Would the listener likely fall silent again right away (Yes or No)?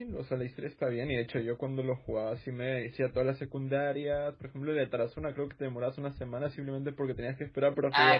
No